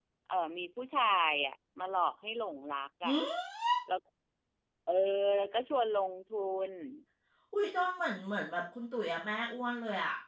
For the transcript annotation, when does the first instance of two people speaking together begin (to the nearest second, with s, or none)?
none